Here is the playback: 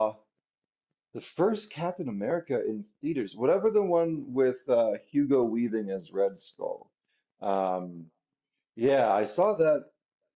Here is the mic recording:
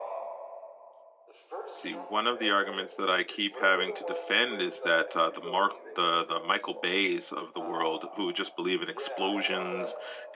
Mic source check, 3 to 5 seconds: both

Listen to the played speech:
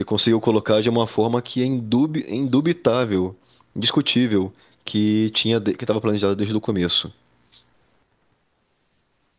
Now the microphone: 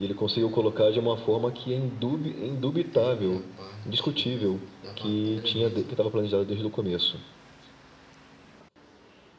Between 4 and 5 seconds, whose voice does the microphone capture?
both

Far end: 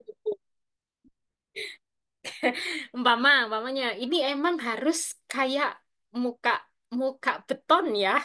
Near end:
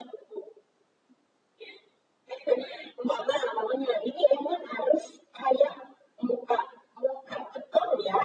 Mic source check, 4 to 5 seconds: echo only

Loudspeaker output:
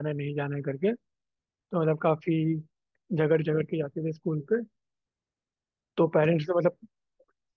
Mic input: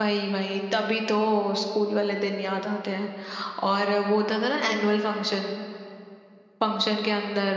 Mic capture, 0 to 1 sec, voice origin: user only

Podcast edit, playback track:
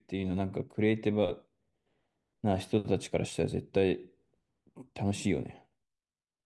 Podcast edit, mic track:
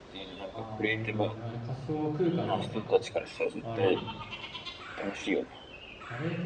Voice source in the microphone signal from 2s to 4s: both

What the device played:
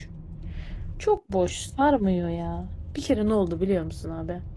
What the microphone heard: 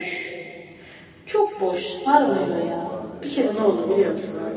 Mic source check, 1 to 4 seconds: both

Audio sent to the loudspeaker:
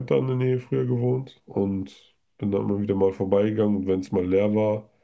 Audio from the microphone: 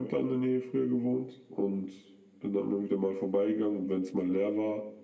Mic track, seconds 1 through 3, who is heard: echo only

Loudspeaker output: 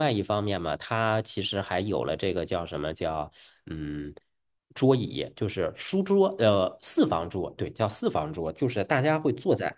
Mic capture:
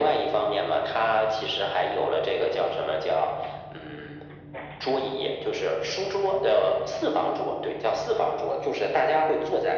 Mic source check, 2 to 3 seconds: echo only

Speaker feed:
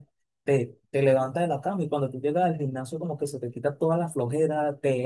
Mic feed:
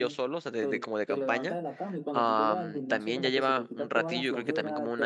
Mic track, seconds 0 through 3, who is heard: both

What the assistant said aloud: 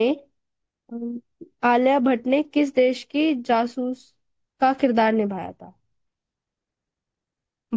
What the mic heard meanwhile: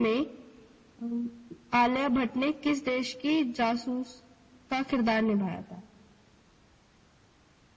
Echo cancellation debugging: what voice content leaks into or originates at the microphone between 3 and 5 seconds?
echo only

